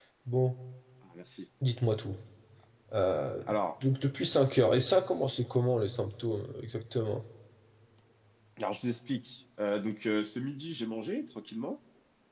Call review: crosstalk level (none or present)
none